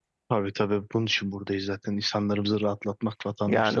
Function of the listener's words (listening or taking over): taking over